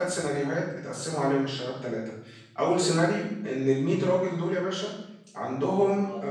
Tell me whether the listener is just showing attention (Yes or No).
Yes